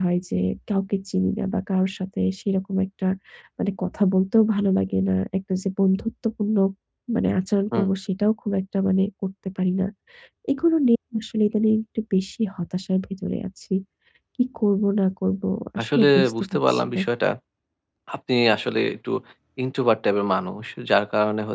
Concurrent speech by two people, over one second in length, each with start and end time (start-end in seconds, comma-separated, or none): 15.8-17.0